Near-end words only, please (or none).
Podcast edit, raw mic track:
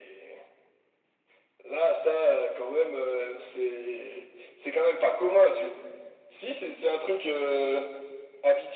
none